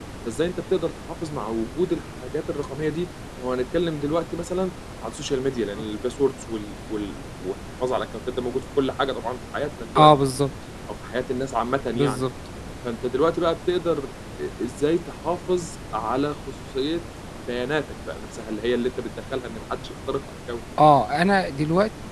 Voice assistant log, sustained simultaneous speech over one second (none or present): none